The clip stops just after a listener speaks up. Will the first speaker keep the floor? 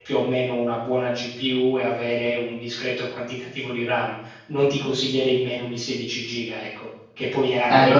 No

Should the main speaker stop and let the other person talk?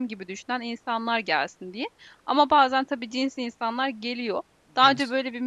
No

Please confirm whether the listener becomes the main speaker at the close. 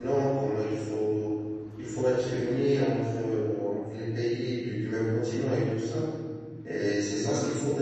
No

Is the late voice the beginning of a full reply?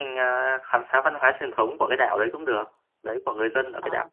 Yes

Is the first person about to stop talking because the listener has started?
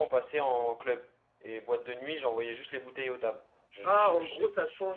Yes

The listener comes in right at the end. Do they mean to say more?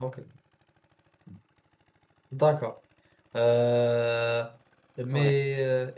No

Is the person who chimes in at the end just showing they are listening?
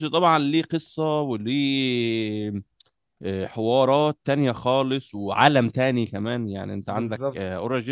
Yes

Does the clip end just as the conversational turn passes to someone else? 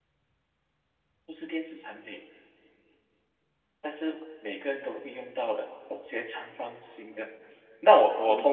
No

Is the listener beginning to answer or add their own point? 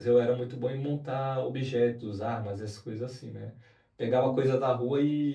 No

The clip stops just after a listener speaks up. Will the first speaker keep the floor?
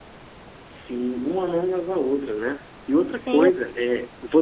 Yes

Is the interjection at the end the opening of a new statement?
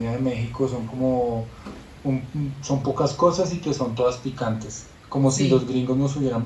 No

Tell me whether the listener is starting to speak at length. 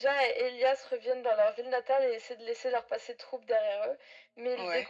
No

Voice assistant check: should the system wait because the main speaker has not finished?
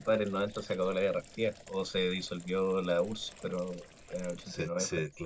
No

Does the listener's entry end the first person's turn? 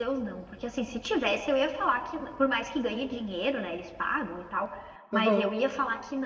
No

